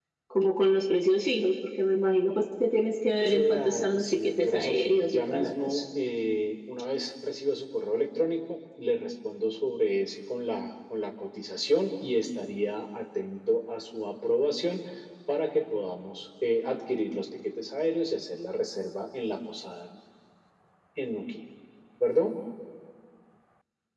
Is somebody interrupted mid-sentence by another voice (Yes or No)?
Yes